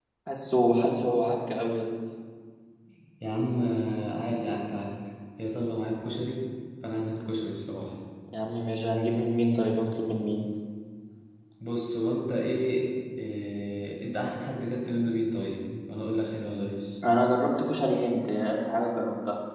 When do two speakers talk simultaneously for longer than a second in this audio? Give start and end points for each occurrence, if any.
none

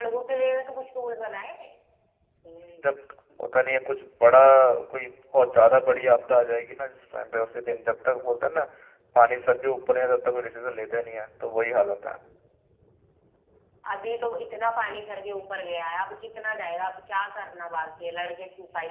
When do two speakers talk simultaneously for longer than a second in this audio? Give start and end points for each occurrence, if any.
none

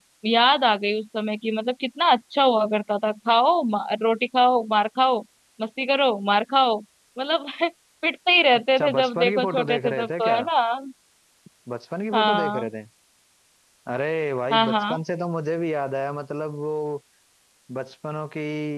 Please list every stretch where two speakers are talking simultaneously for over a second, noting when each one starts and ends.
8.8-10.4

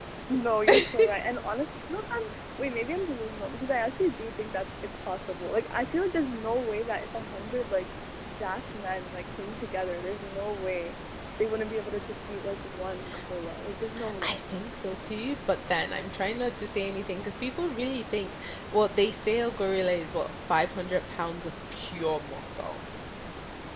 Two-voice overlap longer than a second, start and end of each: none

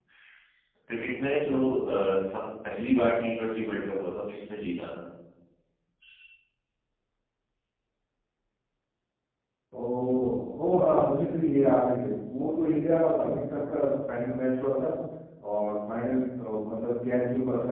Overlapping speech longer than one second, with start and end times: none

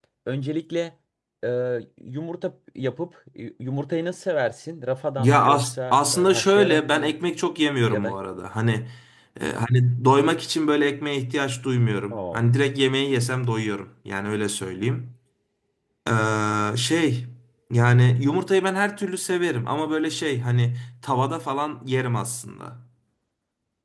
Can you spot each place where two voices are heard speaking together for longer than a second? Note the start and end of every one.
5.2-7.2

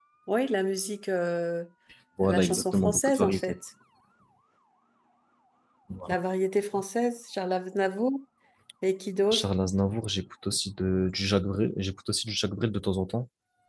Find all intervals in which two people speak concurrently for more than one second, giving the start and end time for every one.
2.2-3.5

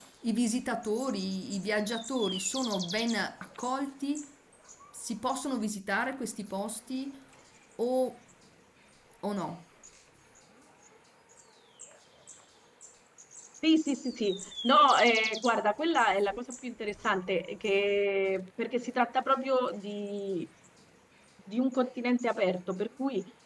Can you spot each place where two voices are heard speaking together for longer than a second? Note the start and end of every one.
none

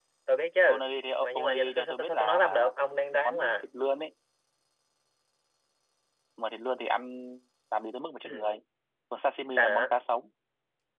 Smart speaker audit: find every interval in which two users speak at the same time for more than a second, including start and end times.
1.2-2.7

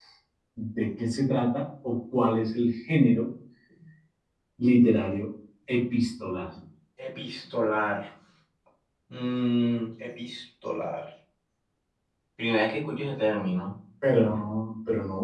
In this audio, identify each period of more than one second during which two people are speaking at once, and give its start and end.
none

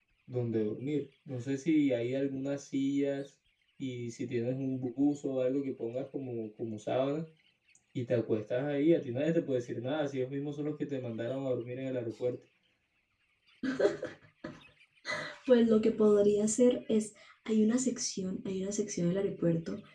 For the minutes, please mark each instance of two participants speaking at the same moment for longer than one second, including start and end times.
none

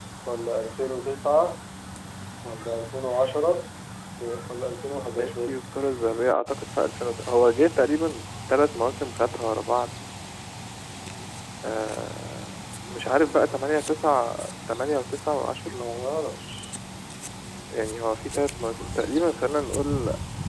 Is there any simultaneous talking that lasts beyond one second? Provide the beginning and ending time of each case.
none

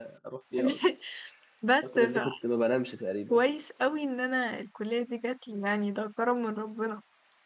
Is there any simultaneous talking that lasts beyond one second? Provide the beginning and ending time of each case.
none

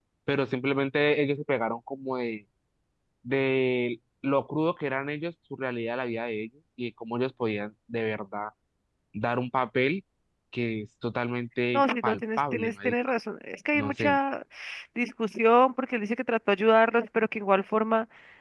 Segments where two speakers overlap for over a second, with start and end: 11.7-12.9

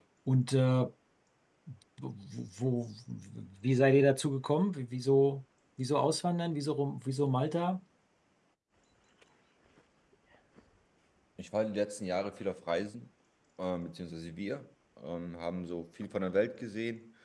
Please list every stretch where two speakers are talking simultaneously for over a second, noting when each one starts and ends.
none

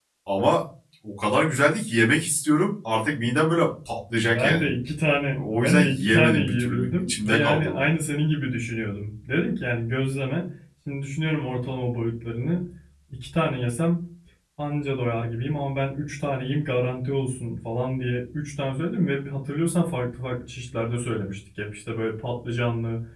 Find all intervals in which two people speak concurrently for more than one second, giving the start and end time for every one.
5.3-7.8

